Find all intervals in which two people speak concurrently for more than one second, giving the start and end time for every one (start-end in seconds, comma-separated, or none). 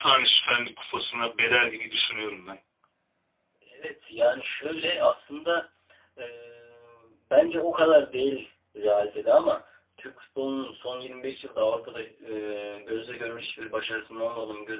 none